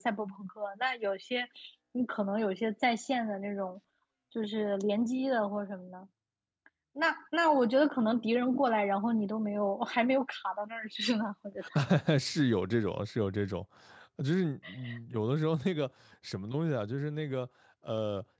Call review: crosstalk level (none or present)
none